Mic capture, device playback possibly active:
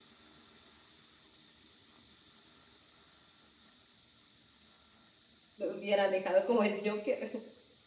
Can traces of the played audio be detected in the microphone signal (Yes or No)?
No